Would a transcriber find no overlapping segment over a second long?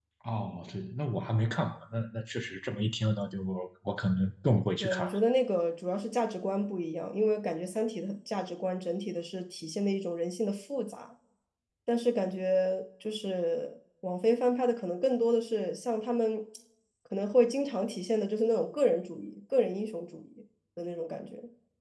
Yes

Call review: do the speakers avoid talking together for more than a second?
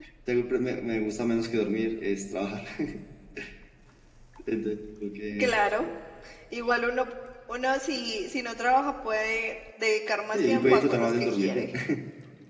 No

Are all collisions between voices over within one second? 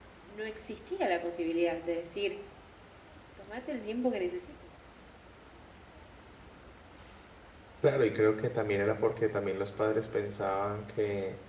Yes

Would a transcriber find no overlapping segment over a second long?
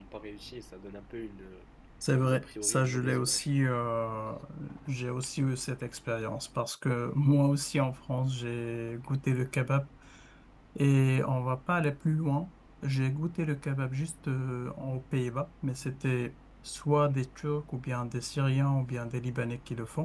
No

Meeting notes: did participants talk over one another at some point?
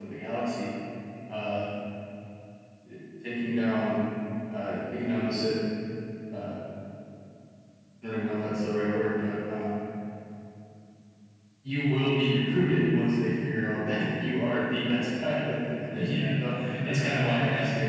Yes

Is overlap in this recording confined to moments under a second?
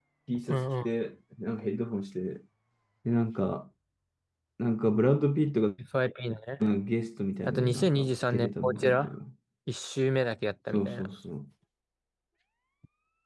No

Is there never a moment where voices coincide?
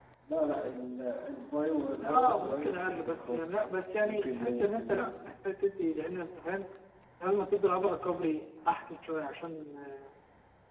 No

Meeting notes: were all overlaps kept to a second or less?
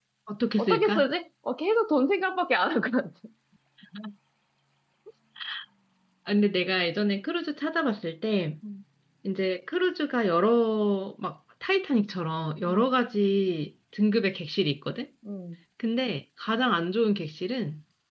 Yes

